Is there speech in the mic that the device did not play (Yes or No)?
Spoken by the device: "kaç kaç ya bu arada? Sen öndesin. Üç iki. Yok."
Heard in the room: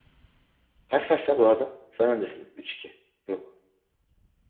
No